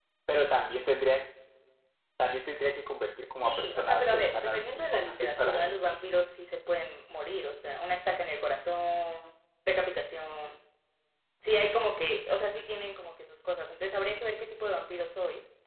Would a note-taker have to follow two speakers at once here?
Yes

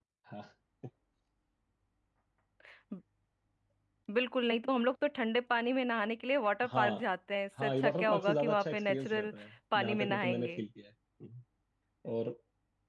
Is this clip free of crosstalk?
No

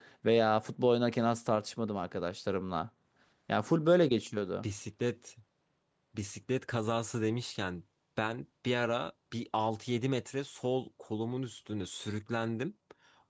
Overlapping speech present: No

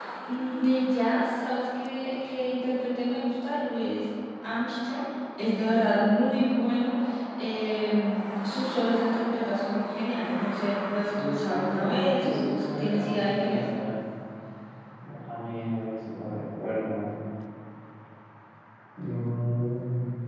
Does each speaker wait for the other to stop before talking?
No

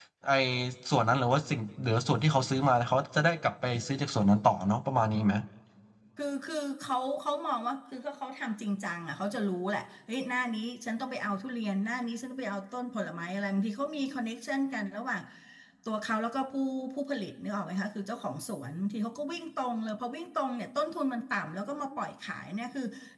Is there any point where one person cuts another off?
No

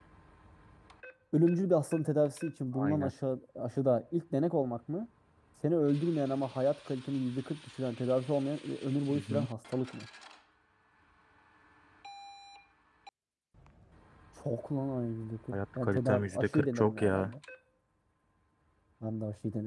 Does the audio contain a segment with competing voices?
Yes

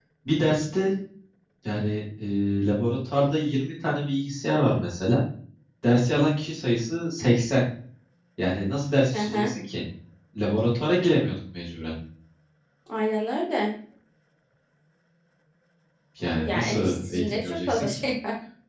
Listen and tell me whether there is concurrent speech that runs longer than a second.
Yes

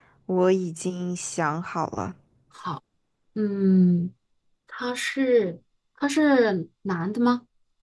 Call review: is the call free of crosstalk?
Yes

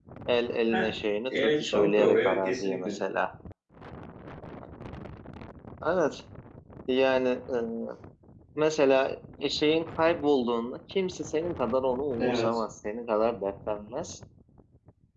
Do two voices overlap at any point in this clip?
Yes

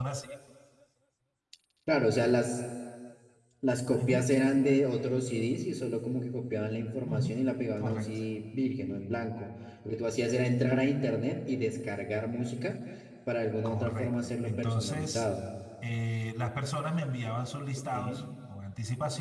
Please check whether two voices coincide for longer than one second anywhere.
Yes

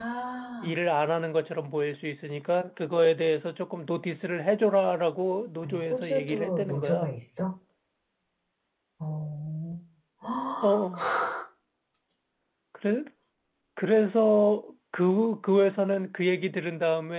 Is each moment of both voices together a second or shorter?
No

